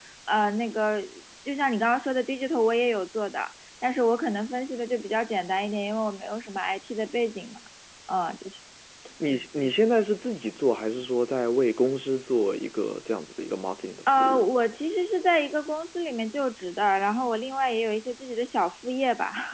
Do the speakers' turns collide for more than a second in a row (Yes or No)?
No